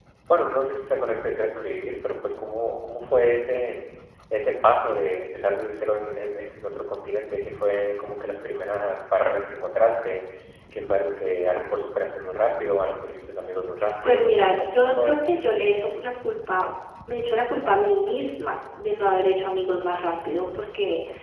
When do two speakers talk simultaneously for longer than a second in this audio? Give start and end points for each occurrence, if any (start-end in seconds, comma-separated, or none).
14.0-15.3